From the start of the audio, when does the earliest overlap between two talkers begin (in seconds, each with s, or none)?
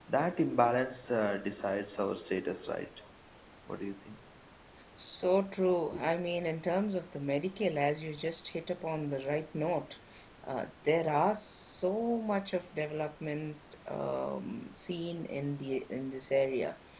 none